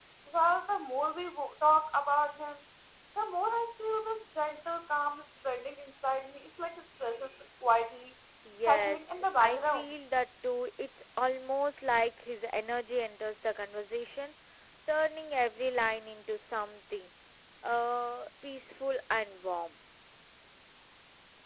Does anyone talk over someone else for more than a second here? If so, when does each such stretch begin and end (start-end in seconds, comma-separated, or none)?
8.7-9.9